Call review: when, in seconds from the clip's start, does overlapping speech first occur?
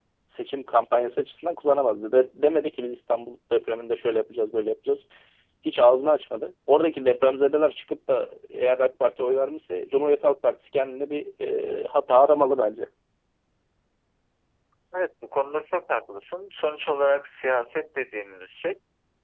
none

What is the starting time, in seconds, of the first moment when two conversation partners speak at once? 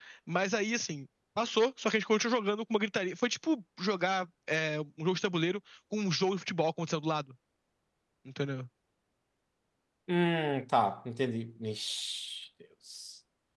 none

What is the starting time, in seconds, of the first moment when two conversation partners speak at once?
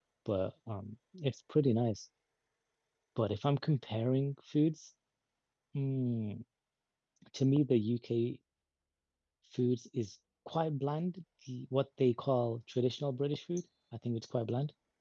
none

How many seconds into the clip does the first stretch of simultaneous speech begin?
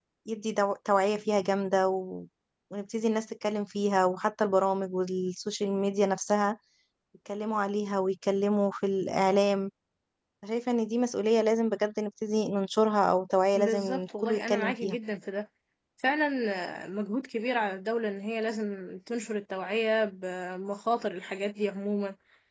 14 s

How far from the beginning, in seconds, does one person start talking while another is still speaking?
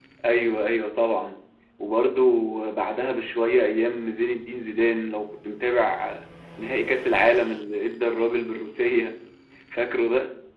none

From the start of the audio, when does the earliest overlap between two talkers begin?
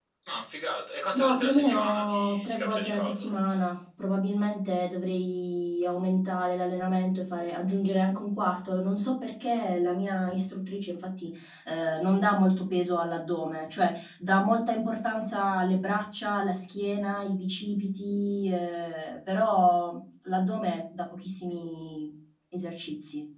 1 s

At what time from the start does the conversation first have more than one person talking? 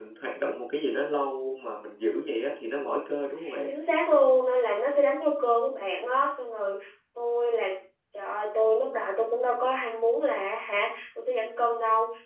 none

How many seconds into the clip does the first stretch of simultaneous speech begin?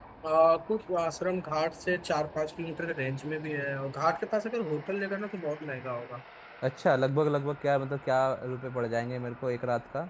none

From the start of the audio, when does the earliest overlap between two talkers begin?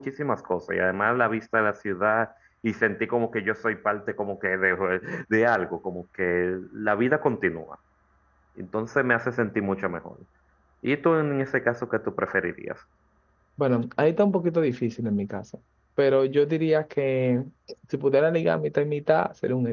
none

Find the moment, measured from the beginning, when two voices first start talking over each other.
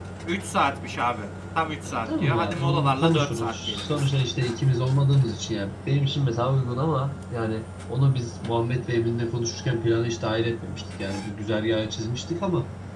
2 s

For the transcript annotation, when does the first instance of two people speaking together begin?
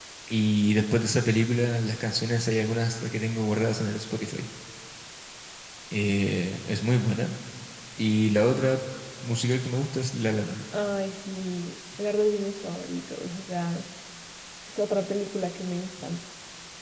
none

